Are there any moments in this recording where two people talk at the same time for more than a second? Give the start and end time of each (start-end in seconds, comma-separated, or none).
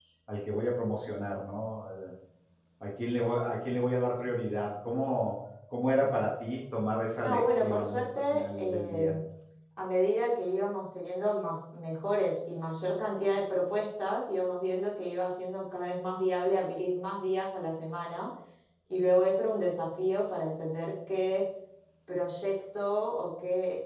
7.2-9.1